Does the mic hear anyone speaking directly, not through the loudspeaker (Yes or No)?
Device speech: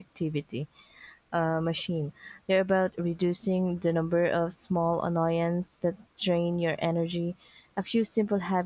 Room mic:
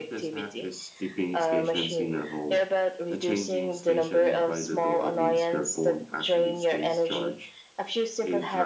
Yes